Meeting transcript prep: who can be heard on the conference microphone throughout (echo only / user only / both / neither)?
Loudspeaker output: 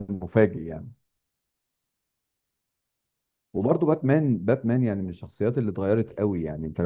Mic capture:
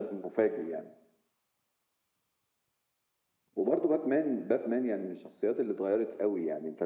echo only